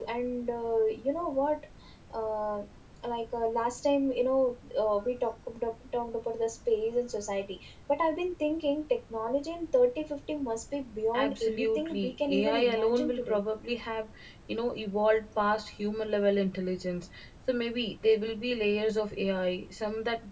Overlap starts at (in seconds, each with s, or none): 11.1 s